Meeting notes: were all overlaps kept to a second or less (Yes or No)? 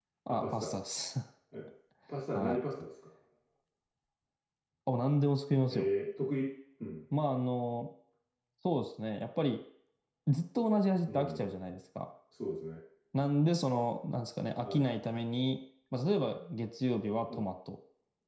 Yes